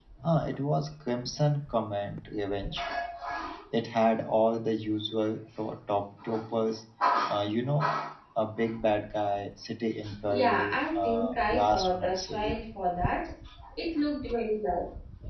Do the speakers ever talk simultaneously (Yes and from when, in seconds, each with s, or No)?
Yes, from 10.3 s